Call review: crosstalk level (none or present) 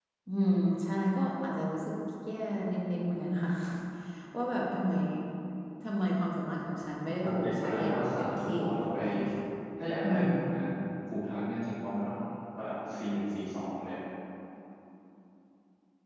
present